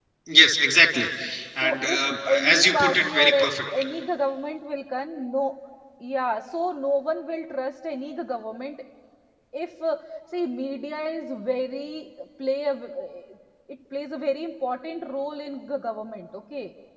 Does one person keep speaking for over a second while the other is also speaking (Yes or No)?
Yes